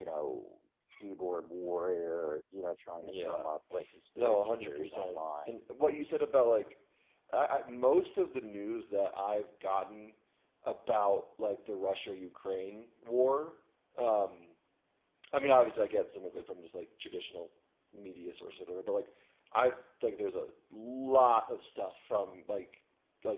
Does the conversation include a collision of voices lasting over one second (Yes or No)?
Yes